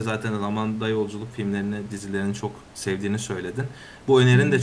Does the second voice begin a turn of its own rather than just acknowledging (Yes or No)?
No